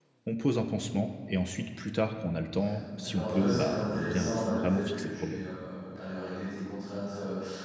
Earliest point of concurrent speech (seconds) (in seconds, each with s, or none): 3.0 s